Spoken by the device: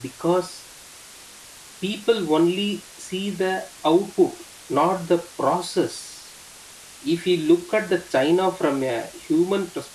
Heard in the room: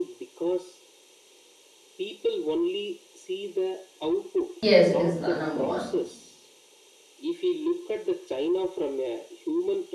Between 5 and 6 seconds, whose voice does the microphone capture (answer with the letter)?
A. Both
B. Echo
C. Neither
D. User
A